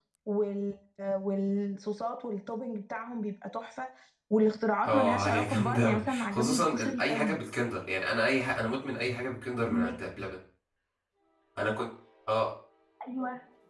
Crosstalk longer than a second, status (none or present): present